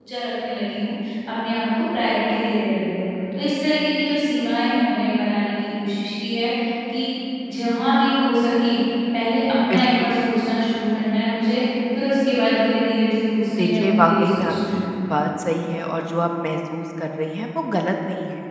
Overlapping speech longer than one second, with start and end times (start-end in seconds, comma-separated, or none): 13.6-14.9